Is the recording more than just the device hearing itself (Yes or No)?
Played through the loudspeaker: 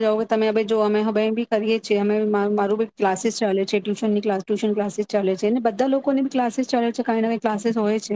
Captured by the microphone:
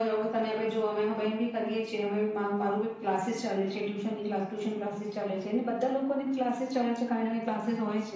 No